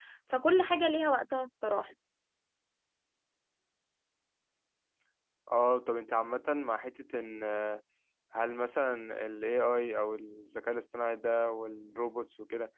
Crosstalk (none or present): none